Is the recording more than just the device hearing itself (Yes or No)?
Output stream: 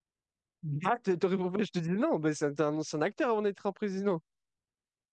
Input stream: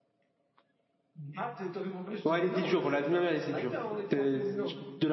Yes